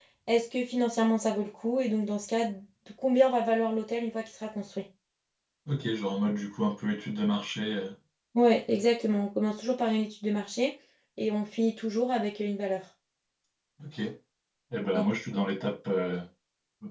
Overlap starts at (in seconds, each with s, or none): none